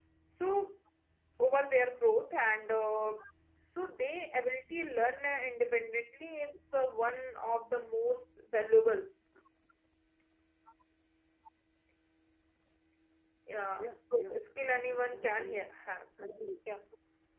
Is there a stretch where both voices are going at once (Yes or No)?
Yes